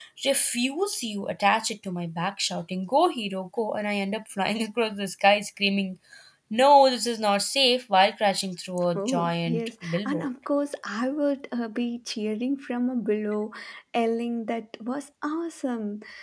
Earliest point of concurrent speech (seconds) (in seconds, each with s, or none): 9.0 s